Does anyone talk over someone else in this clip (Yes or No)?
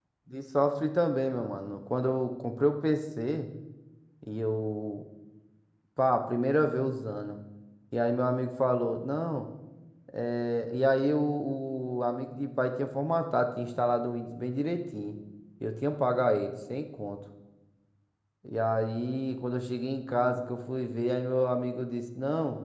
No